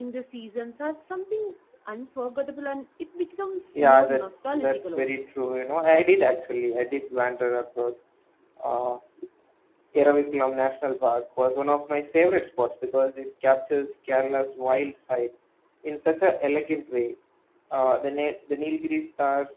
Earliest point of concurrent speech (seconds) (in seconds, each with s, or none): 3.7 s